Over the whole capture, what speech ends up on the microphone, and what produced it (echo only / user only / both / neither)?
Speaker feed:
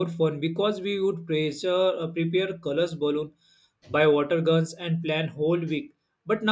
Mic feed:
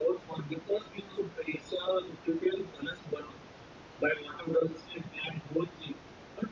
echo only